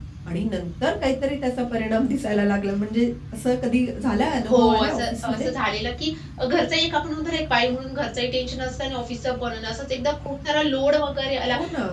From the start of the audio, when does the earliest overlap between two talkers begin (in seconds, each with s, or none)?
4.2 s